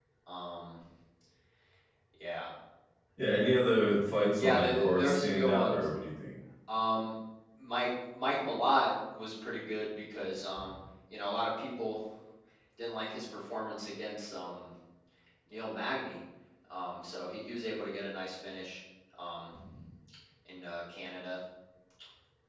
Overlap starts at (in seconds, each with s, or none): 4.4 s